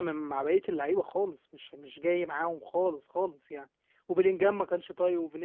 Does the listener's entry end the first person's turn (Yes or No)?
No